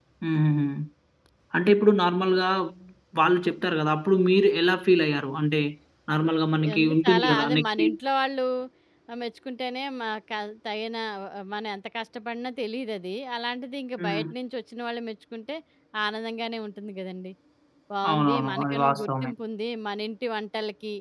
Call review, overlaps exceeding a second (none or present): present